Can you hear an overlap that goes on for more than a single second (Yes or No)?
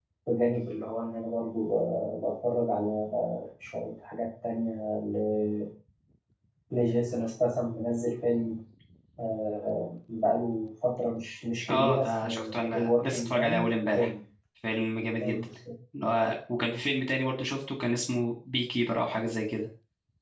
Yes